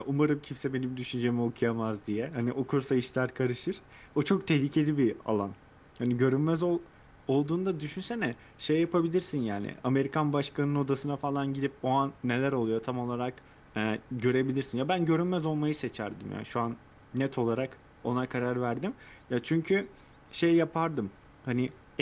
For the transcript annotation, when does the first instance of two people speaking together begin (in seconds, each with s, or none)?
none